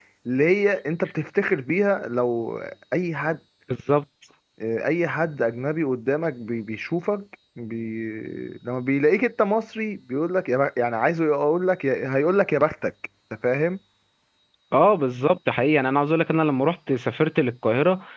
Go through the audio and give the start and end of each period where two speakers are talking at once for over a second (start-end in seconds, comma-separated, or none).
none